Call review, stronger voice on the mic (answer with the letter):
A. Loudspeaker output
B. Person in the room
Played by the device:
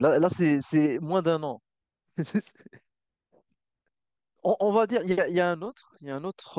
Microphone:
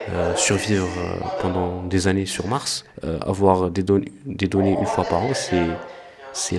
B